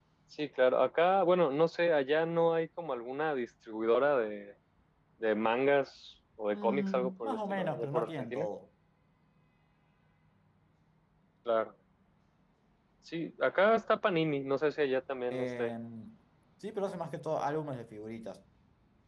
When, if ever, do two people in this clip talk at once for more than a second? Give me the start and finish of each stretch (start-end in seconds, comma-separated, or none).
6.5-8.5